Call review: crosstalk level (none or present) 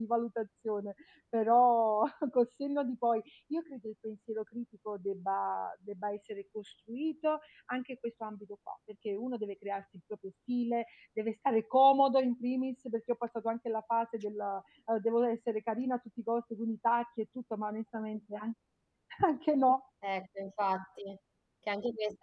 none